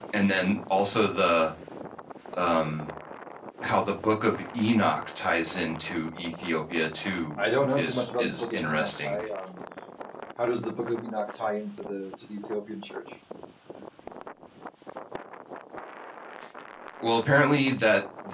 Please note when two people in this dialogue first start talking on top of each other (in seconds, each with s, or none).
7.4 s